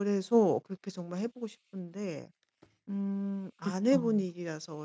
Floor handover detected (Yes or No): No